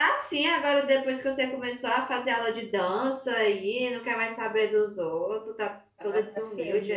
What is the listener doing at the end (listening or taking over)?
taking over